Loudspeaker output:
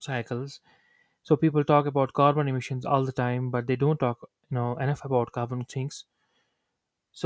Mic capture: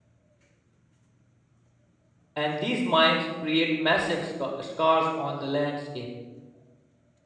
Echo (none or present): none